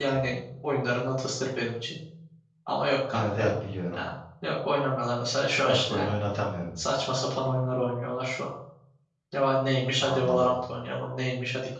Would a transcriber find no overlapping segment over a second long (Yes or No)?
Yes